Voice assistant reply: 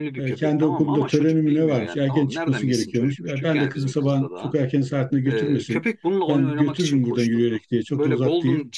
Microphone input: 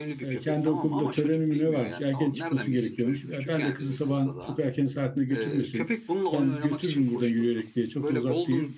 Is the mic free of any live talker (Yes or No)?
Yes